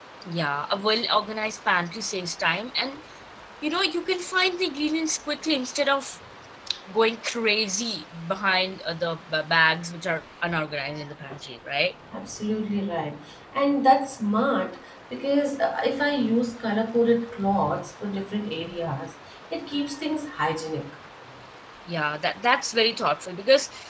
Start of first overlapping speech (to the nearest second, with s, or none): none